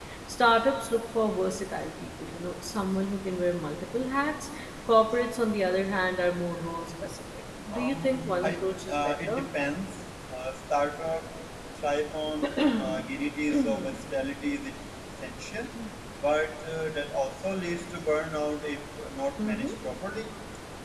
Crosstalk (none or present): present